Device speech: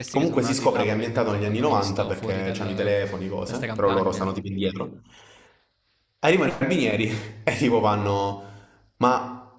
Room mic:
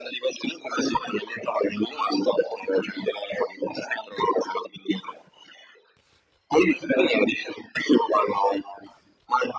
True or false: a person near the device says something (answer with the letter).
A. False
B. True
A